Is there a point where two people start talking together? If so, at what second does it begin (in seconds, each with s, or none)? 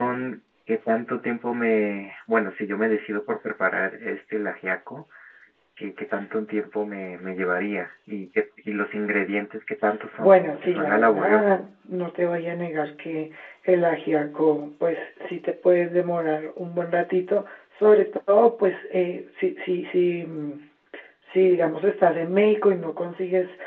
10.2 s